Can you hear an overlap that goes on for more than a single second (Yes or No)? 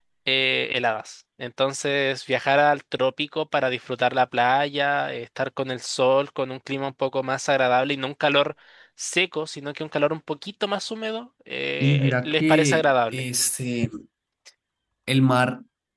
Yes